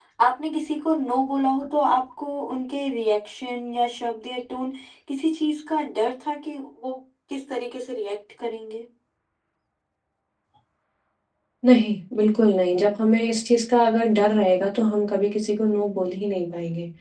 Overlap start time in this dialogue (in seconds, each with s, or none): none